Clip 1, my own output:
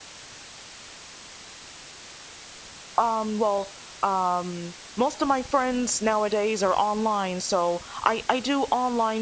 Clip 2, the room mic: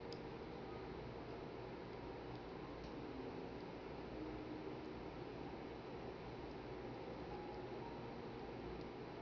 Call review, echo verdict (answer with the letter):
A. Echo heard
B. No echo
B